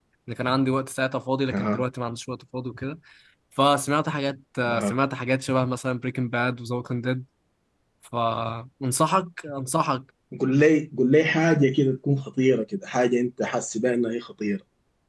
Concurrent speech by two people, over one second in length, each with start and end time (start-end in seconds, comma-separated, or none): none